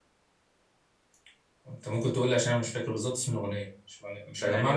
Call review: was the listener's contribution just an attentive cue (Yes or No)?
No